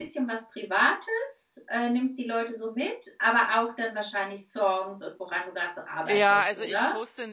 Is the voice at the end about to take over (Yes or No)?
Yes